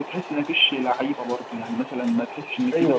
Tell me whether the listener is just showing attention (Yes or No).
No